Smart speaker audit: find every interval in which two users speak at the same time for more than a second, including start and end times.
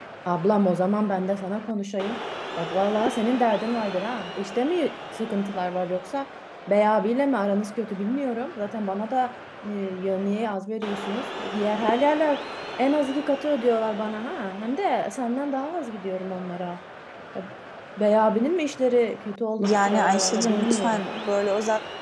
19.6-21.0

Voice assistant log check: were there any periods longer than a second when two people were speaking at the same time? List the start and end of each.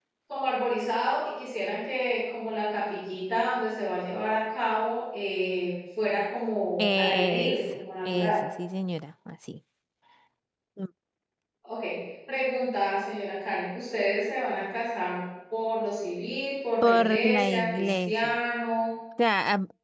6.8-8.4, 16.8-18.4

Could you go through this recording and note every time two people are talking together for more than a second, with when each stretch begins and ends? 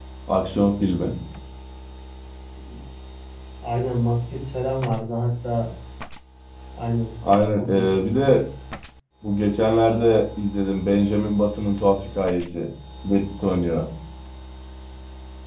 none

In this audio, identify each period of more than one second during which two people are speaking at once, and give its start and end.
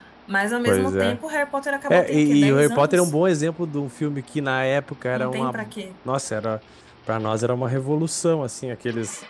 1.9-3.1

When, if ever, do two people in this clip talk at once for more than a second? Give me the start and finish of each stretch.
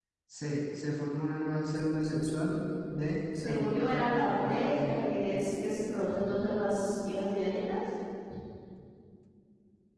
3.4-4.9

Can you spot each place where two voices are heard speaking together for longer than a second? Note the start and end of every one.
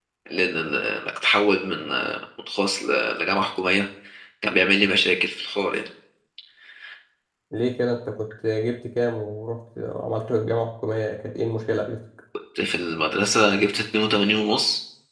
none

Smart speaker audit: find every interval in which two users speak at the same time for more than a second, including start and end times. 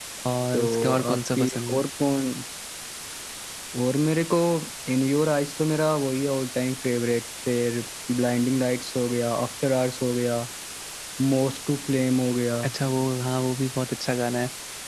0.5-1.8

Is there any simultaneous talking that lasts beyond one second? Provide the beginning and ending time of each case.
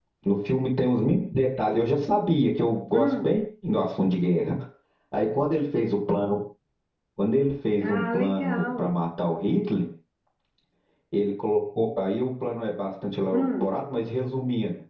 7.8-9.0

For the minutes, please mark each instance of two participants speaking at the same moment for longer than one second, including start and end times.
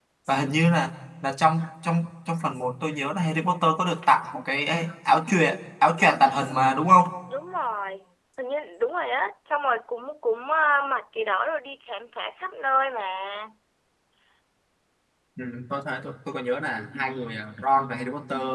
none

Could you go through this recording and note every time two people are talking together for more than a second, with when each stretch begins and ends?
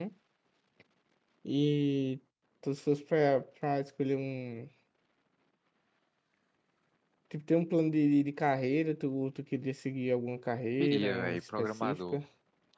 10.7-12.2

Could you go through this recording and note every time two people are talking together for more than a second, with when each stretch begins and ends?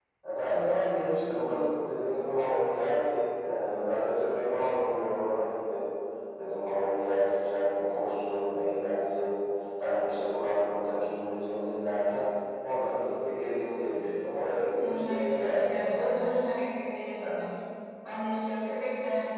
14.8-16.3

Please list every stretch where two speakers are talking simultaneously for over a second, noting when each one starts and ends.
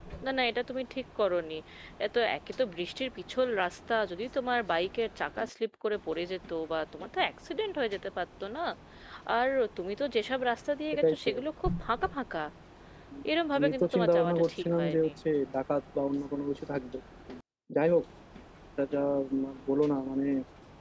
13.6-15.1

